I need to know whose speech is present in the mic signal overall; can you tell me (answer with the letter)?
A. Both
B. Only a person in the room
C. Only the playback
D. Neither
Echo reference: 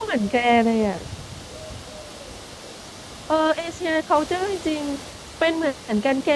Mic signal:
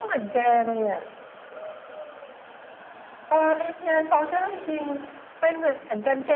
C